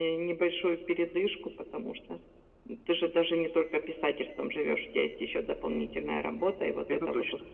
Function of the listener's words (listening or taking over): listening